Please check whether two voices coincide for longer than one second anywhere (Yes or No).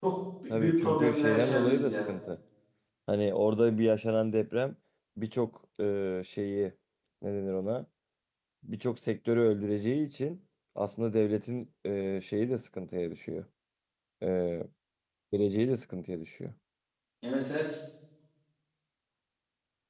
Yes